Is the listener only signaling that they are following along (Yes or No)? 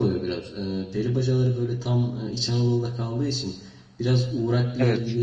Yes